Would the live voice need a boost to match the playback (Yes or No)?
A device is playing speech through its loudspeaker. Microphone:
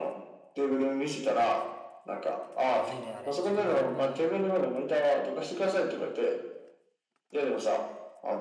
Yes